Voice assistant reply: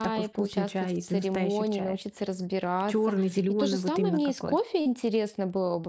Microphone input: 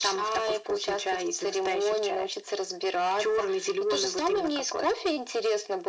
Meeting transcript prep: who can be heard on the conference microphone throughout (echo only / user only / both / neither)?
echo only